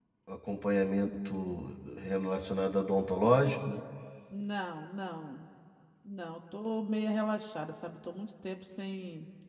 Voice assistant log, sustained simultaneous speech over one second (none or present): none